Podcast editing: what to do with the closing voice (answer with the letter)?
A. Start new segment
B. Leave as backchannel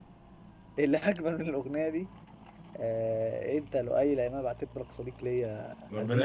A